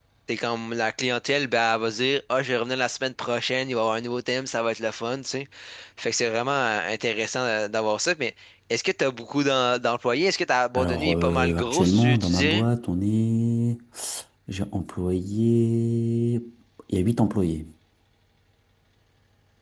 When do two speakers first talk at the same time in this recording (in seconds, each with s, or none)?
10.7 s